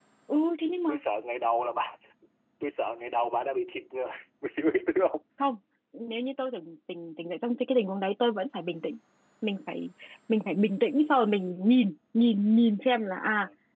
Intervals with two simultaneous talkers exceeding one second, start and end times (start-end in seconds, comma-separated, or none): none